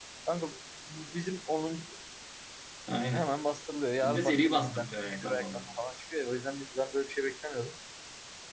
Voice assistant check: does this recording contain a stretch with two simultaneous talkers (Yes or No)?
Yes